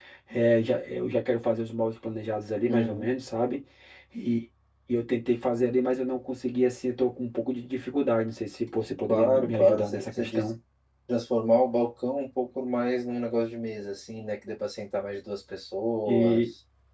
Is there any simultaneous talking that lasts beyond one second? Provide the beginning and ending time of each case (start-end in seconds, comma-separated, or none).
9.1-10.5